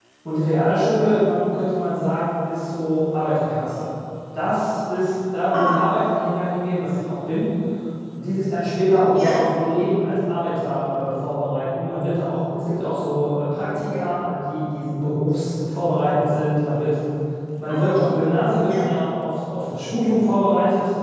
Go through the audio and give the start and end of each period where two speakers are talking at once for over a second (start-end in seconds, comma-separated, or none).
none